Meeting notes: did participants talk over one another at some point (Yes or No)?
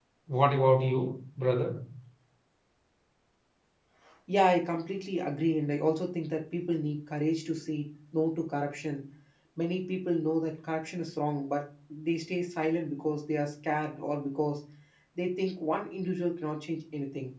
No